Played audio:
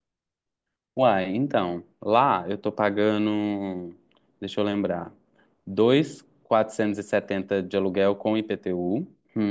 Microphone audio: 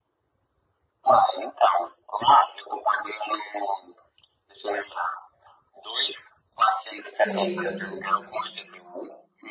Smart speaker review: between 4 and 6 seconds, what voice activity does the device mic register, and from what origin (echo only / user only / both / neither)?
echo only